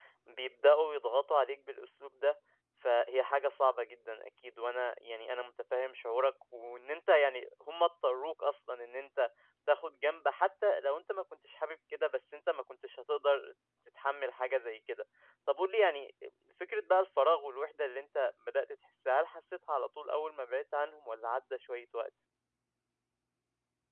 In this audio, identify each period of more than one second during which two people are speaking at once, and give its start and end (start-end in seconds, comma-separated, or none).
none